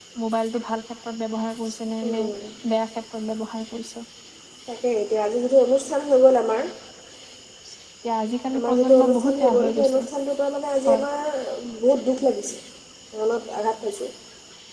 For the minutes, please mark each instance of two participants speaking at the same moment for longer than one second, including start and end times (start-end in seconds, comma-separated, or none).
8.6-10.0